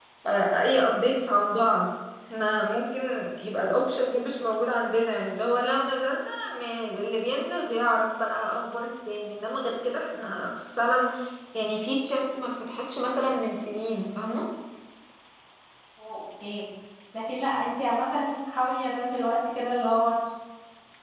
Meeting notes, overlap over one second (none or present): none